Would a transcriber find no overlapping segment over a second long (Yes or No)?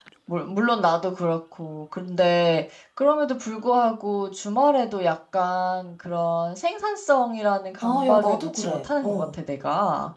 No